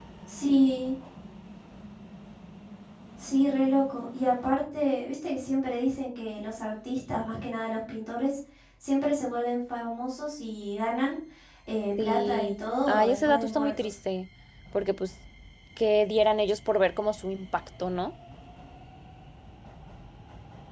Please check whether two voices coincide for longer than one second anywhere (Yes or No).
Yes